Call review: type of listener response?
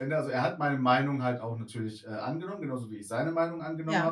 listening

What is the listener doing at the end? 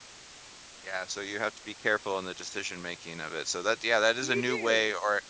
listening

